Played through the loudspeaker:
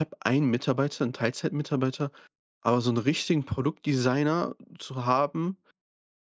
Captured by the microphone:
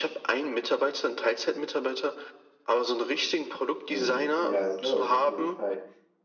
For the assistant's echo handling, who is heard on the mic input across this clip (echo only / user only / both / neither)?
both